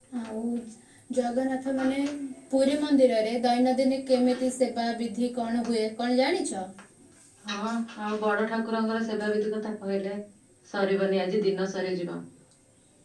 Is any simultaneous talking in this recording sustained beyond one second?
No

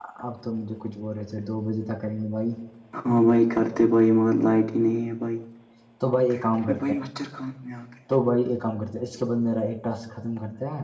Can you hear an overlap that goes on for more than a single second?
No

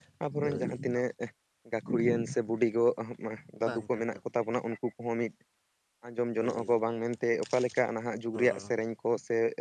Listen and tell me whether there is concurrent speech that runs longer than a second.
No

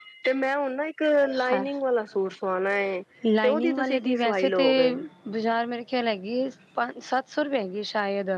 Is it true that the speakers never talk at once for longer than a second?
No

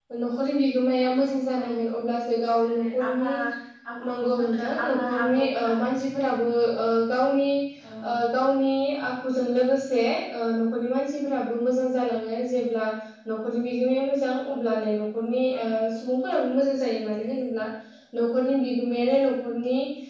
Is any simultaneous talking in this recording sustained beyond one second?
Yes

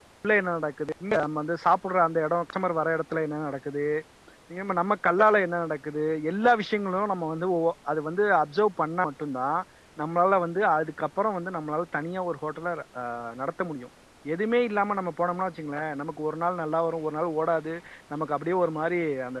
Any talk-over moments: No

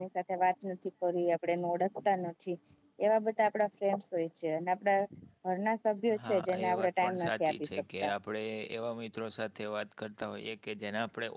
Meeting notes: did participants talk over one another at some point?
Yes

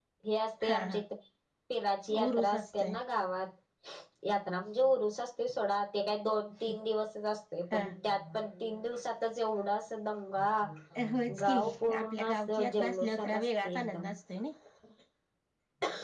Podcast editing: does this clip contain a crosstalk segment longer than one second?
Yes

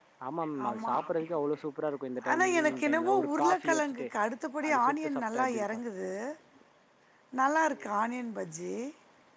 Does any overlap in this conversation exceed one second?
Yes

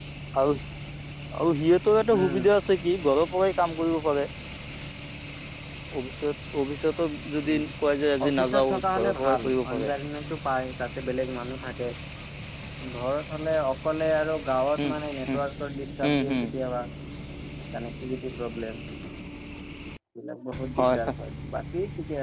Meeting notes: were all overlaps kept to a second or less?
No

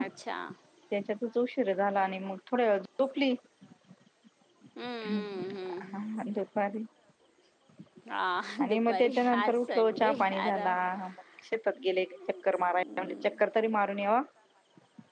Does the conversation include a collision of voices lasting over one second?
Yes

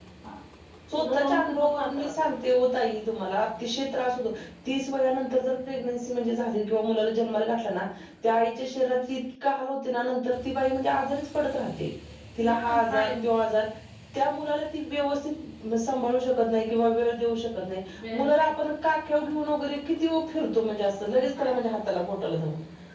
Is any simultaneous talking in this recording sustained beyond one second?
Yes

